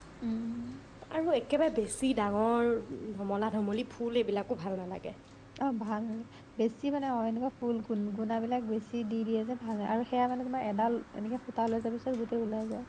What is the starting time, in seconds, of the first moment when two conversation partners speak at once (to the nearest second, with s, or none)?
none